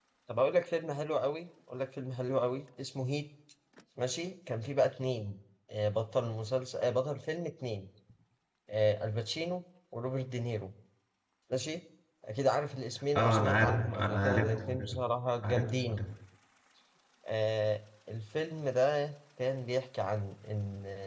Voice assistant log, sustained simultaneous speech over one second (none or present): present